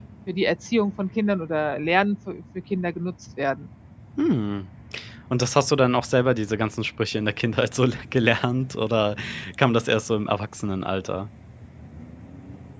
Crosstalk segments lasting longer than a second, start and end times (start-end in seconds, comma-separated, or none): none